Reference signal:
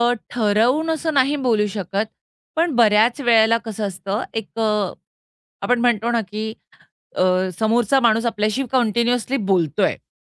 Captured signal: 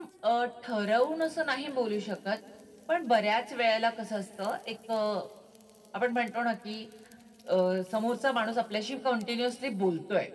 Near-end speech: none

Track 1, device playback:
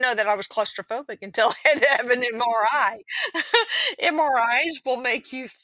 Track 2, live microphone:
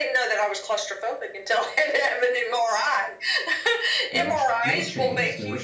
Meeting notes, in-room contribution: present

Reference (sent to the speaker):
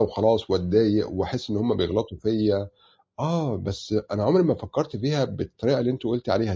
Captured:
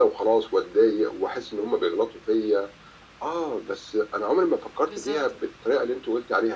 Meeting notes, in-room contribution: present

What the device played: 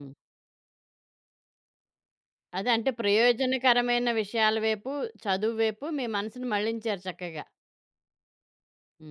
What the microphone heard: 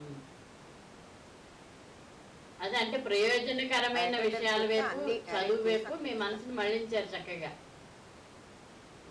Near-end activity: present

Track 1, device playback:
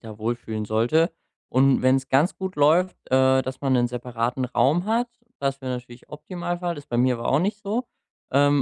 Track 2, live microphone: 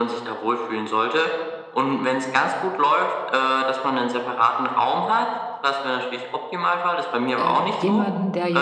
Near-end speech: present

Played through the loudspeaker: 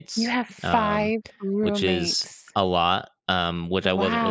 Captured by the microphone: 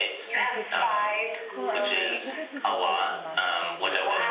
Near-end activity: present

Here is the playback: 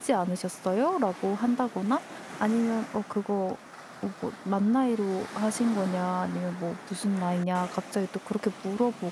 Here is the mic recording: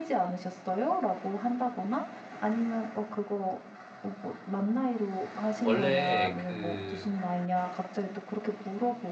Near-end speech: present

